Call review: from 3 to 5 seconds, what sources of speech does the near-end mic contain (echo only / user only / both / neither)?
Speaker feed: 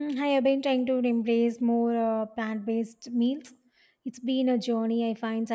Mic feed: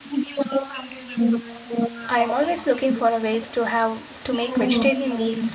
both